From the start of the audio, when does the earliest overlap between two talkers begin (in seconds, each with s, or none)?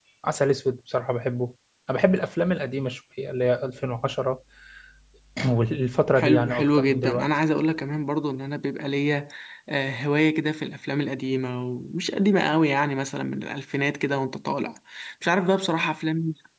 6.2 s